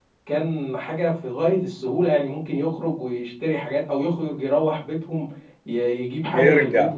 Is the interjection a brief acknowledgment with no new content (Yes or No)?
No